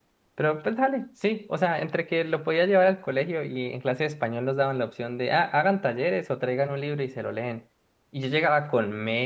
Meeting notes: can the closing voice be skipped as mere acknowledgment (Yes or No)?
Yes